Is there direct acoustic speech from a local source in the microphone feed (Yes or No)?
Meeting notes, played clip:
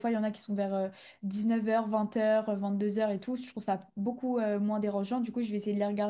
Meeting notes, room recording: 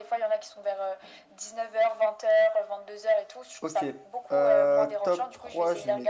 Yes